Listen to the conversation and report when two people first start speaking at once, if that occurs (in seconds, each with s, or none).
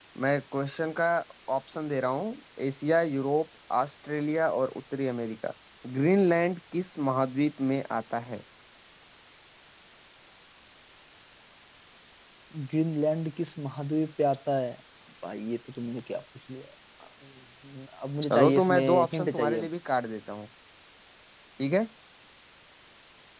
18.2 s